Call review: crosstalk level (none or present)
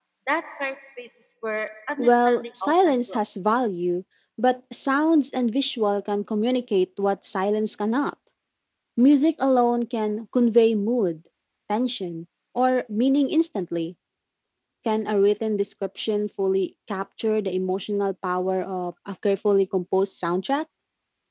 present